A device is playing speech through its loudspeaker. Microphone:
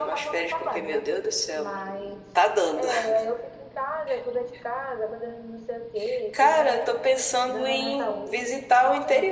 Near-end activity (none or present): present